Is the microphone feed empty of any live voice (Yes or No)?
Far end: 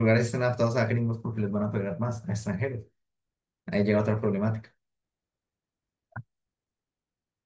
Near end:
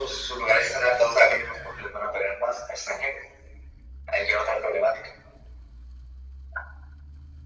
Yes